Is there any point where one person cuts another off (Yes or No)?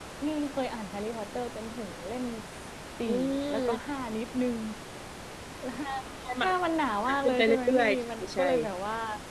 Yes